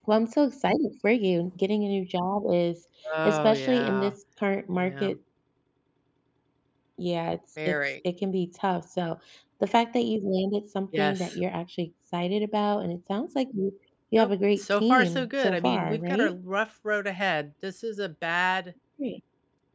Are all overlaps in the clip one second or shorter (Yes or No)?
No